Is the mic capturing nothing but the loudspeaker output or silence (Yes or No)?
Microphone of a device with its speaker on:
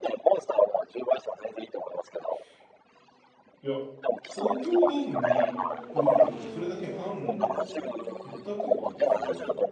No